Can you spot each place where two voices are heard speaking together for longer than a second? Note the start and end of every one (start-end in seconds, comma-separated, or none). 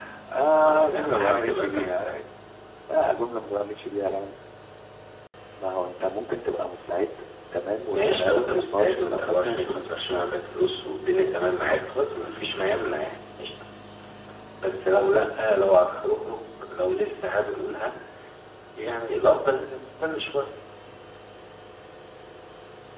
0.6-2.1, 7.9-9.8